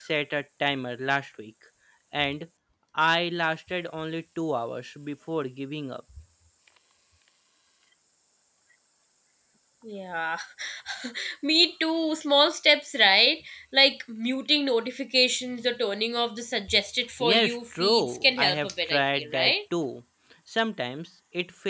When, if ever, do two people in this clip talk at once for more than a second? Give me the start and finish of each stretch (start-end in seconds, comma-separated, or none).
17.2-19.5